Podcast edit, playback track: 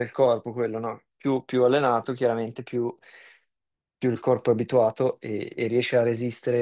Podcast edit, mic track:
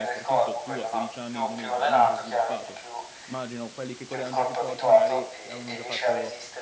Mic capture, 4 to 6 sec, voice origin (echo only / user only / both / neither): both